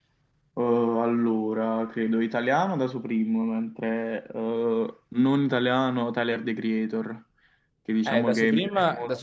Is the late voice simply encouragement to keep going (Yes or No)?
No